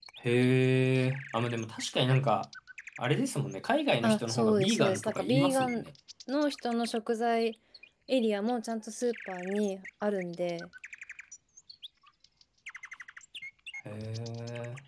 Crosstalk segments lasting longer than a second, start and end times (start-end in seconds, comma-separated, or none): 4.0-5.8